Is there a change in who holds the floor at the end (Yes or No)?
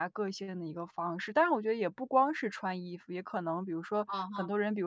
No